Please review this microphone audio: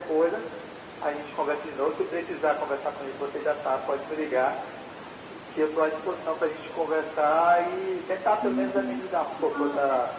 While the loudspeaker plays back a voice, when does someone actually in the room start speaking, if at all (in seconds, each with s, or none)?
8.4 s